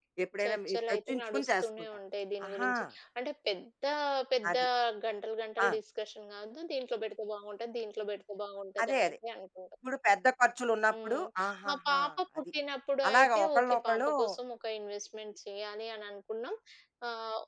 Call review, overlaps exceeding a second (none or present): present